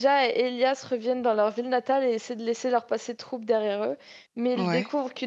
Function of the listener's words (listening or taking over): listening